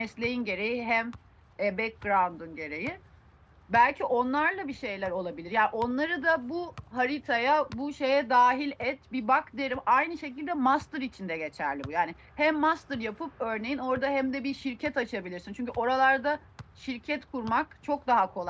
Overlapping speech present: No

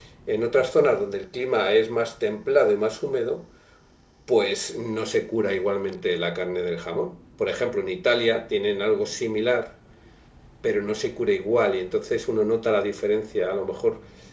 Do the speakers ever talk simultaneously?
No

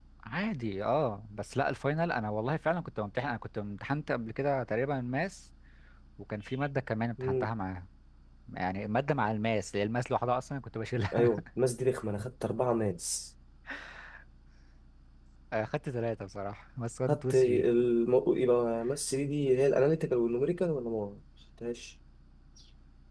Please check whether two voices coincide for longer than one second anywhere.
No

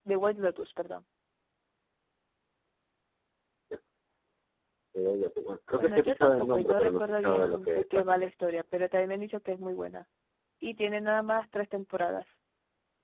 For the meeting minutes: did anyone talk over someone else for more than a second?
Yes, from 5.8 s

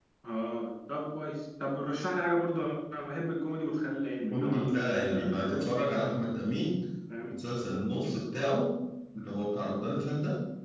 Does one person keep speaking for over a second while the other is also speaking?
Yes, from 4.3 s

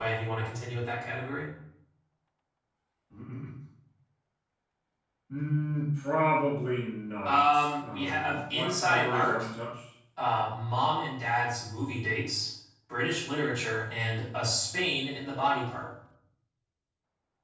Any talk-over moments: Yes, from 7.2 s

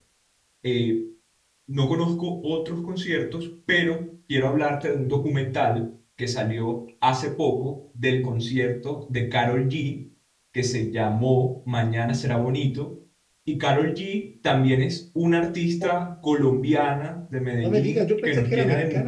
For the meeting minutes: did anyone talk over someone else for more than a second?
Yes, from 17.6 s

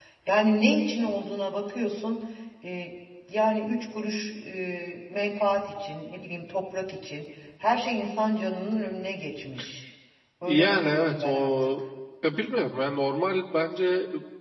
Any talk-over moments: Yes, from 10.4 s

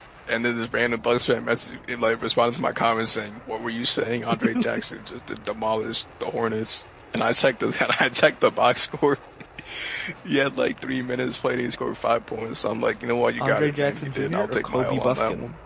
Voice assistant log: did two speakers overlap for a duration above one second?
Yes, from 13.4 s

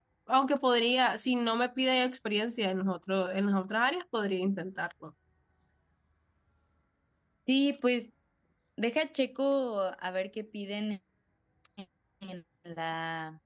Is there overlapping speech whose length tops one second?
No

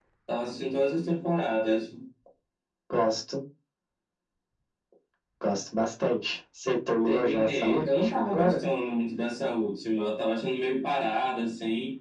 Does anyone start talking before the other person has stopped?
Yes, from 7.0 s

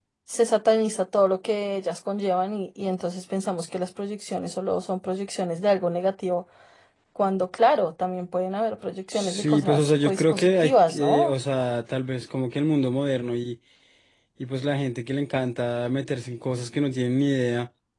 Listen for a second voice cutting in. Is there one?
Yes, from 9.1 s

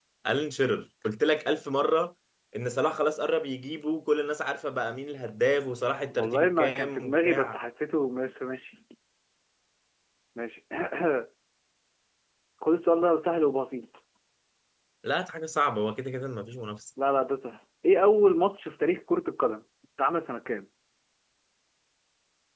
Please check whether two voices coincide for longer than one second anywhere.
Yes, from 6.1 s

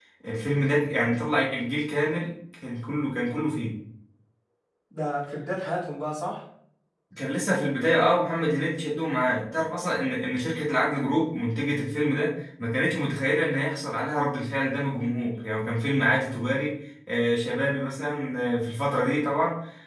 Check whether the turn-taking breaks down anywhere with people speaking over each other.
No

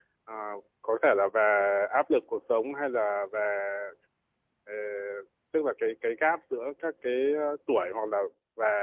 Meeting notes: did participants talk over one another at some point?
No

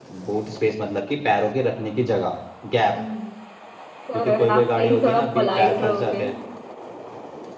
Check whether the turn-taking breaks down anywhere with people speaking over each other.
Yes, from 4.1 s

